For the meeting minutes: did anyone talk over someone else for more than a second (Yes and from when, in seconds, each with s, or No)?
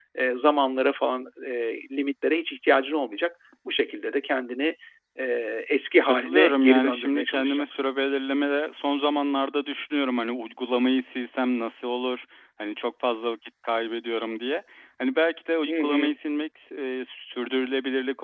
Yes, from 6.0 s